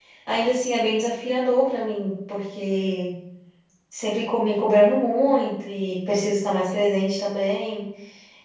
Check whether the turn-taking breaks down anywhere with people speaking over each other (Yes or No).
No